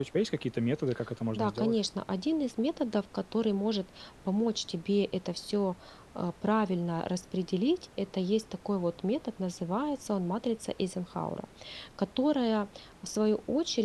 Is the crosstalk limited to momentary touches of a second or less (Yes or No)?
Yes